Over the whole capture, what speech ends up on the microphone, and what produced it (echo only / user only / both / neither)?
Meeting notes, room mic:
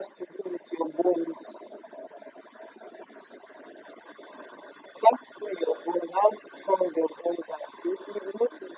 echo only